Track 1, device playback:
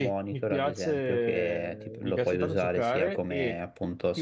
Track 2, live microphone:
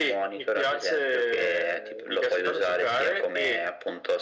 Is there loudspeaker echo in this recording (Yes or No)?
Yes